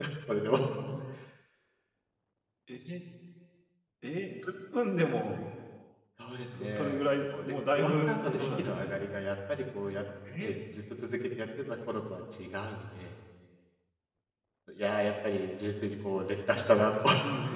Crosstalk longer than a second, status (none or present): present